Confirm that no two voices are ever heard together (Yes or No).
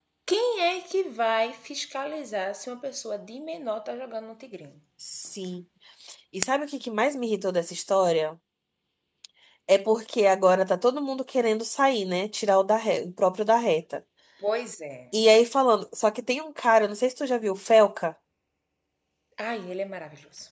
Yes